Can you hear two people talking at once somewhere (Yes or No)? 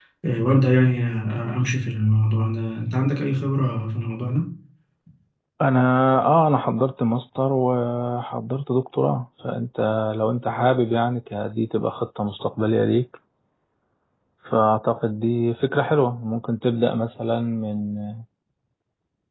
No